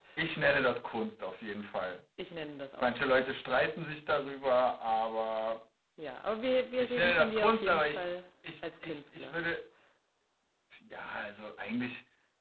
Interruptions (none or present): present